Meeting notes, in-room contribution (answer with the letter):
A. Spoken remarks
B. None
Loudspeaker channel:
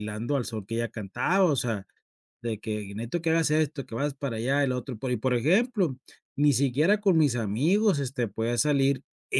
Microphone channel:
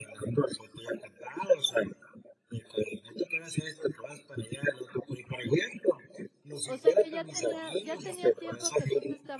A